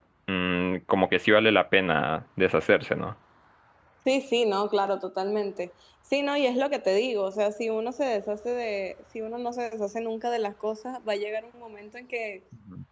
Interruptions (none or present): none